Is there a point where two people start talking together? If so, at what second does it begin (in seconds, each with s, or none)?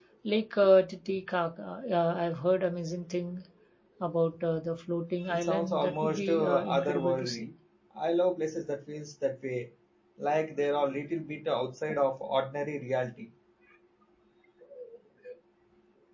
5.3 s